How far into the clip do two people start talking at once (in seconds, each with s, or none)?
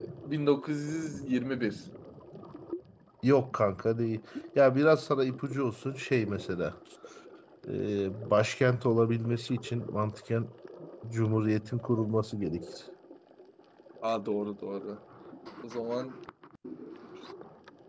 none